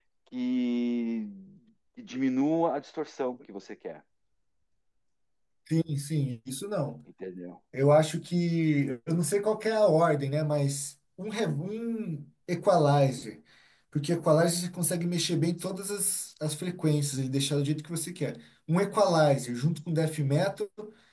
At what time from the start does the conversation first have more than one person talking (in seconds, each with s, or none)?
none